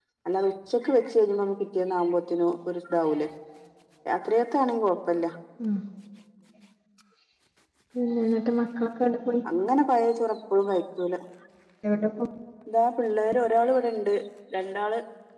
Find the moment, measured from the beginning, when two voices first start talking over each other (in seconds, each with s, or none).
none